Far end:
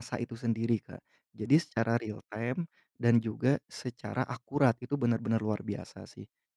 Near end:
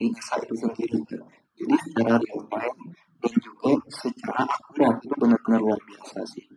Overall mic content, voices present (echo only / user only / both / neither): echo only